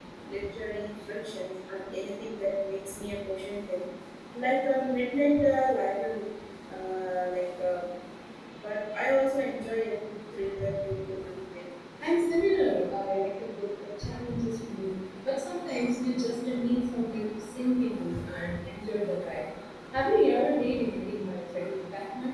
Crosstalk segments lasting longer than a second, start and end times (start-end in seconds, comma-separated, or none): none